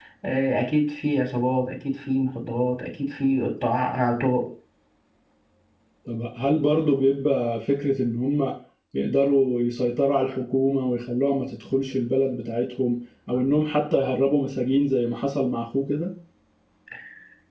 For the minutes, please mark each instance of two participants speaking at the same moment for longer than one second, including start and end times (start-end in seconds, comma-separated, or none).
none